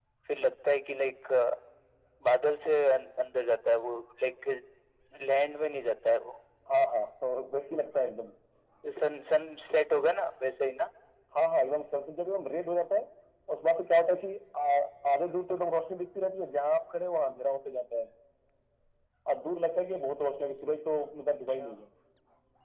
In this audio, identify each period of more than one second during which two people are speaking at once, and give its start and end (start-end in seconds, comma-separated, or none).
none